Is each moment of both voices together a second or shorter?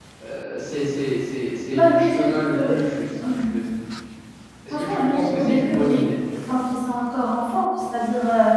No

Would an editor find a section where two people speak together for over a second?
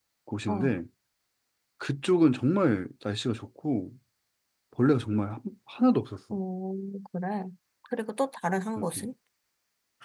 No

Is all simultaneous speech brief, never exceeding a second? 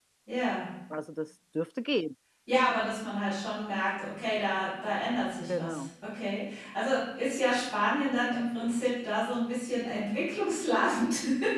Yes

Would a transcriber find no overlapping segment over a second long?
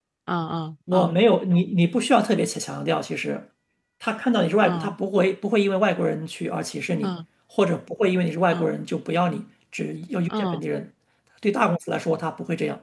Yes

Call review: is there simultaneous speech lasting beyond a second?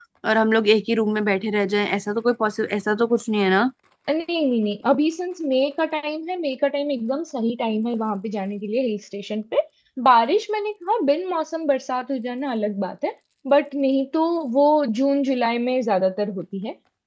No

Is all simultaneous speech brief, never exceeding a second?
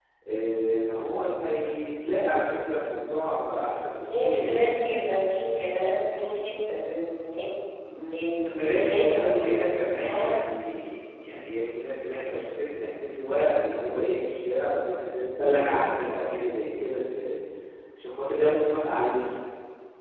No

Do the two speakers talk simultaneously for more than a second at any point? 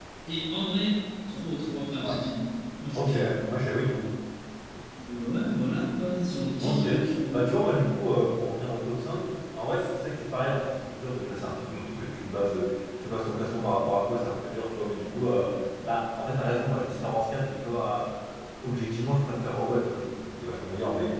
No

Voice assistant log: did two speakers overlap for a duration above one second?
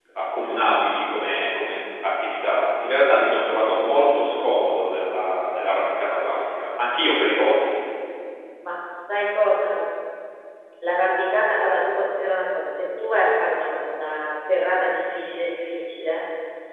No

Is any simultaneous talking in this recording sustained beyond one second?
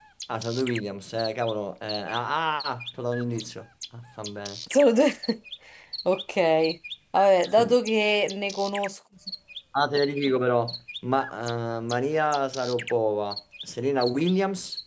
No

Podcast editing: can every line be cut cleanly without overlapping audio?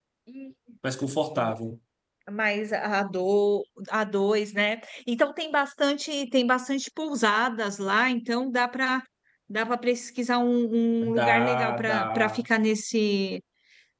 No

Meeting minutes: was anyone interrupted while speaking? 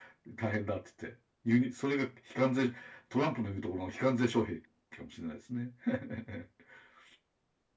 No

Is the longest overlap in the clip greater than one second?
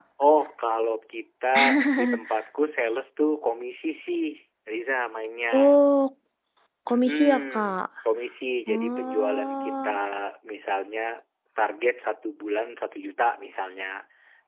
Yes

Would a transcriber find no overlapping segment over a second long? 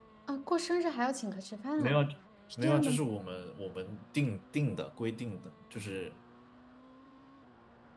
Yes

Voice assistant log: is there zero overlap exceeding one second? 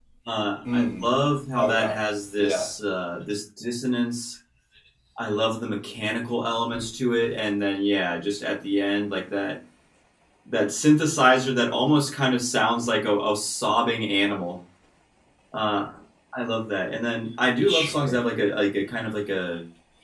Yes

